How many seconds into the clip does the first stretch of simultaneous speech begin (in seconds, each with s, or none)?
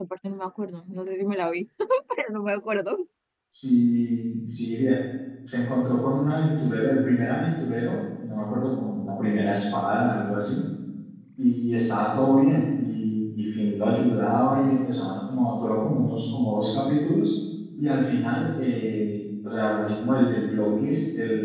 none